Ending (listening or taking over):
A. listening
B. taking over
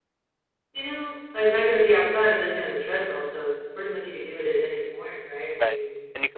B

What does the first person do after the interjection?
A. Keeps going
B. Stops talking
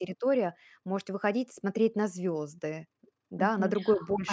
B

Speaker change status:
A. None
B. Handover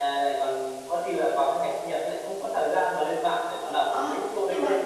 B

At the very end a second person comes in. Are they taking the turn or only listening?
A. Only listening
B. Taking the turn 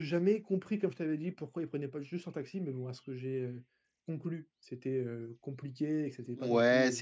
B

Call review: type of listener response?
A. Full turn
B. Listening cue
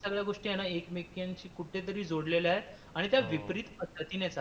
B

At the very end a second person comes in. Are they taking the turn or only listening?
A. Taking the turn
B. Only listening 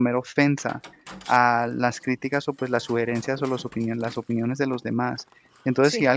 B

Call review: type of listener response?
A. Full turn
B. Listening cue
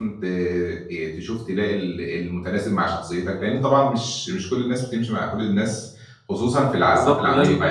A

